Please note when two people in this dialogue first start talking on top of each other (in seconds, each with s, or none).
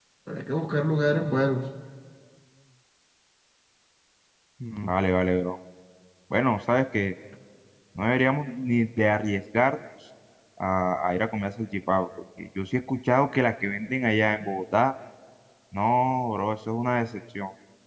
none